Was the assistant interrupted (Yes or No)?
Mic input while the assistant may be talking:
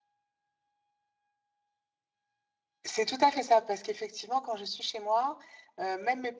Yes